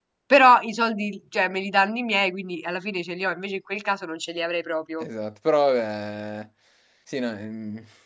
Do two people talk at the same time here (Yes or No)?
No